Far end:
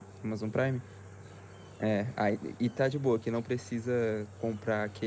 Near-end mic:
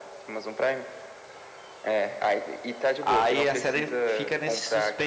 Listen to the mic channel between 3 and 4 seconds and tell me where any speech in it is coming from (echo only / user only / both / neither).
both